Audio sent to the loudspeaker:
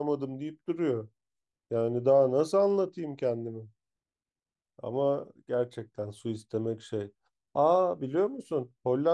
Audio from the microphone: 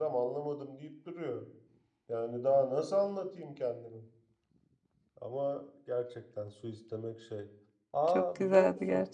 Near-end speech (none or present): present